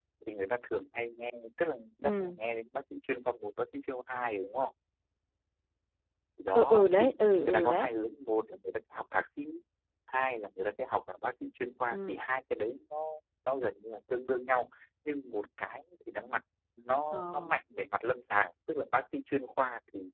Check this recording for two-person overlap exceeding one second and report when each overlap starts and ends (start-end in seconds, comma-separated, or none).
6.5-7.9